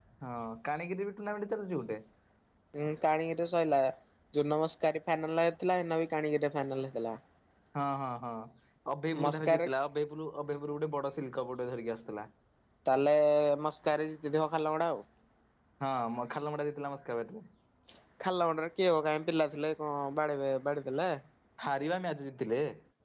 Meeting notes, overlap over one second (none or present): none